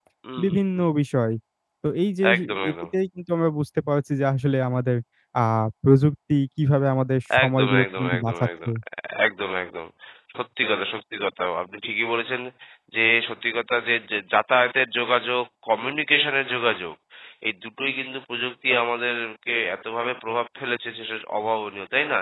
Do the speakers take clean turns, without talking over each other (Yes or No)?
No